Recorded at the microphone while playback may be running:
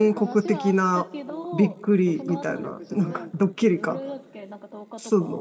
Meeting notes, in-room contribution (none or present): present